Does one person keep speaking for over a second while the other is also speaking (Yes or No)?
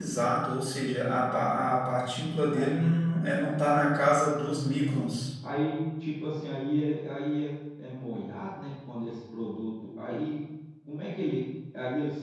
No